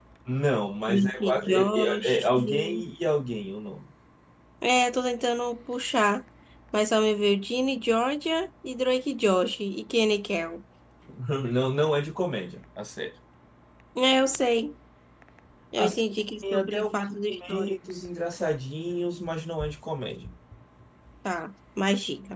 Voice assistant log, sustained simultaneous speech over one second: present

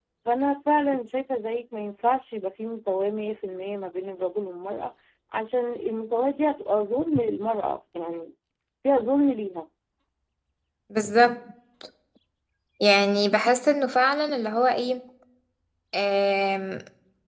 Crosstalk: none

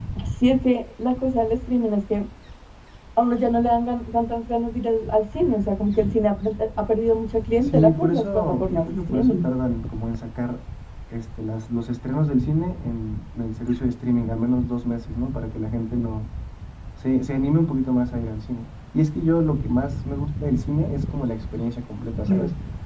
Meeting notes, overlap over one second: present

